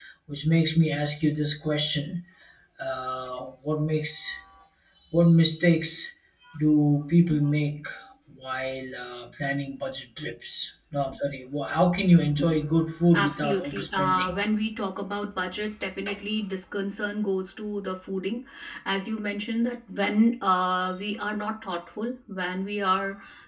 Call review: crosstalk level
present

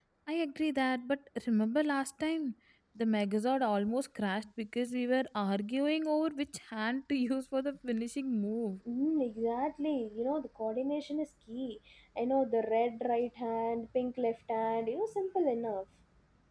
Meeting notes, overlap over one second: none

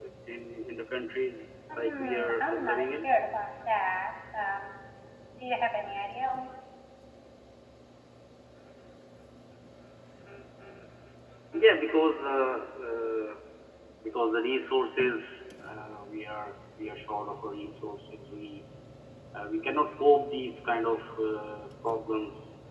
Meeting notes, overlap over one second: present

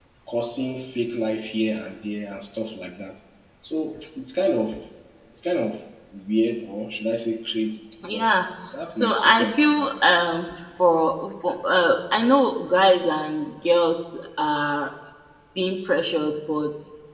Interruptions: present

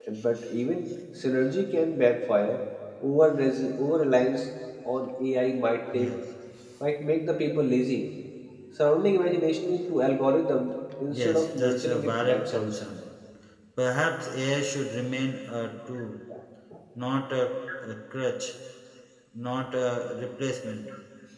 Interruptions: present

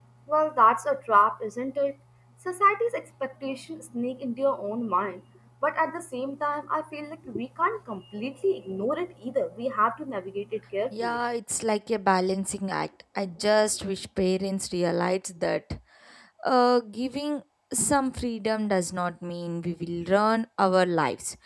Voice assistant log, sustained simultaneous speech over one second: none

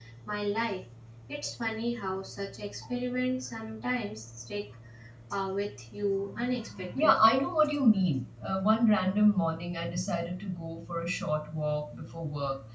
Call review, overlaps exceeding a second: none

